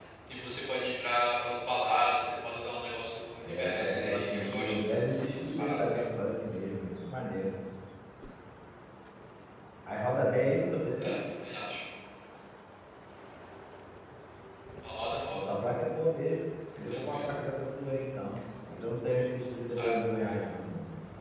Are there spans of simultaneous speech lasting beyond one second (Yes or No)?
Yes